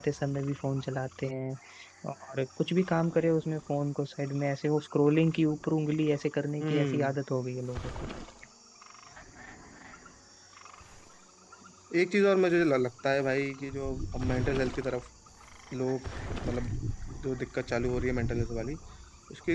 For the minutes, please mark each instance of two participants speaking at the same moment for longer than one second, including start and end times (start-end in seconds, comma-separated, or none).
none